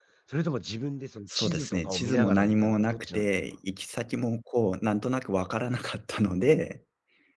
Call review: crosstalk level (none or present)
present